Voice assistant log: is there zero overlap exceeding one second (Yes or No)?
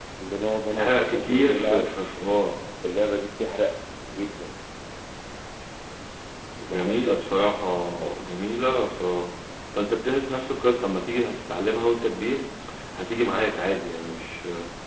No